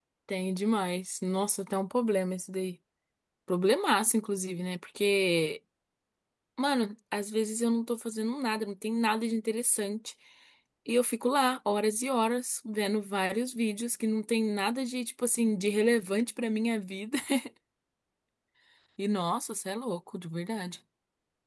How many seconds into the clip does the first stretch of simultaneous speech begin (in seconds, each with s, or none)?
none